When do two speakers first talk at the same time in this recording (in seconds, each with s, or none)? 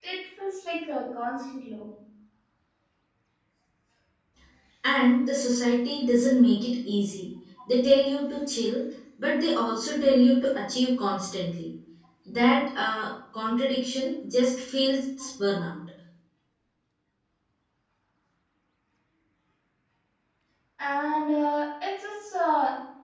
none